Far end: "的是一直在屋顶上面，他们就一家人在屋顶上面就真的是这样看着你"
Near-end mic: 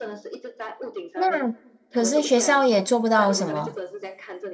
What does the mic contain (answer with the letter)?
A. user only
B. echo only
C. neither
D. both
D